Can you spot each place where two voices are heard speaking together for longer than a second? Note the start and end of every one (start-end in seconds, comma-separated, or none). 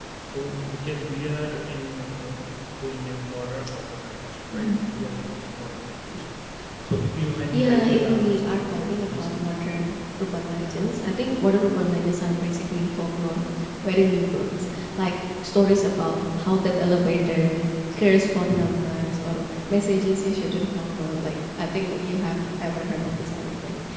7.5-9.3